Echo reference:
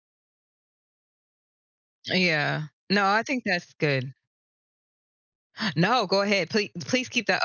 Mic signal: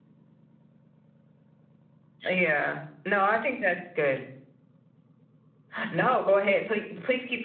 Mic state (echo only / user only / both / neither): echo only